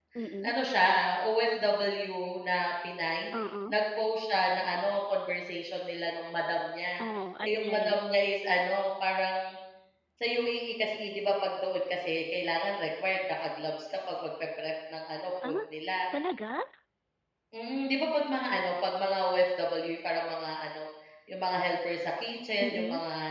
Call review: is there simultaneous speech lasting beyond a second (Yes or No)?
No